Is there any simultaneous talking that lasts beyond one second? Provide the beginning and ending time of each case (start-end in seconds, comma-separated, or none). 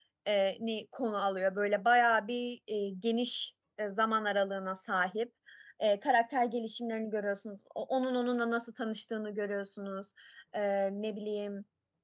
none